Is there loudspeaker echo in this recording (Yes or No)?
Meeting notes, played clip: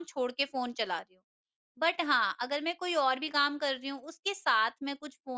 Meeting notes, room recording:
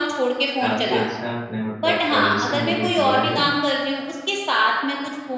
Yes